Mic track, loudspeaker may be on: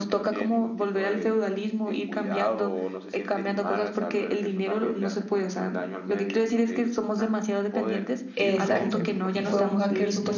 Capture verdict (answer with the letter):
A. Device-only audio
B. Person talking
B